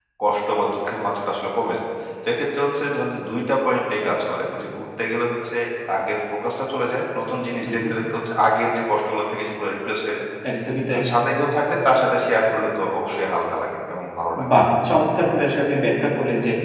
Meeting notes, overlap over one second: none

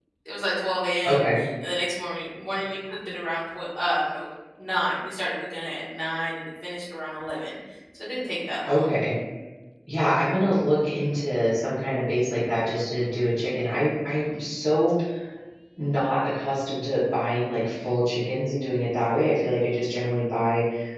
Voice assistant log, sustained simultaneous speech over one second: none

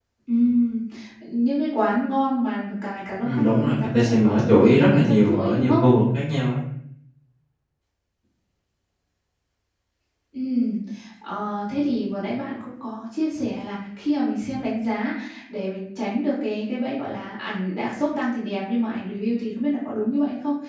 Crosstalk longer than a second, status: present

